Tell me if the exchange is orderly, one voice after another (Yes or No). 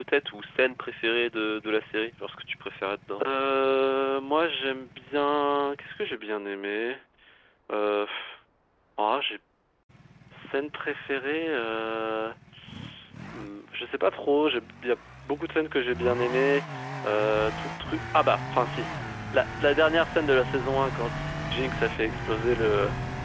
Yes